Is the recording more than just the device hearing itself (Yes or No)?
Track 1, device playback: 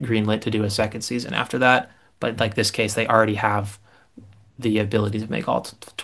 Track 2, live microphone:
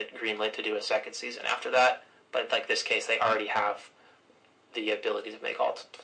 No